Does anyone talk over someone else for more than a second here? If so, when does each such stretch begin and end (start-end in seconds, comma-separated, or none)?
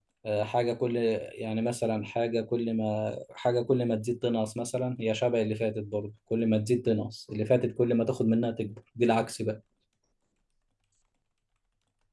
none